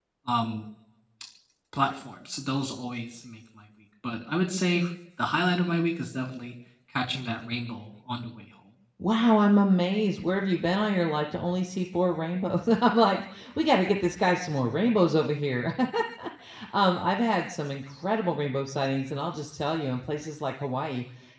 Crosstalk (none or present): none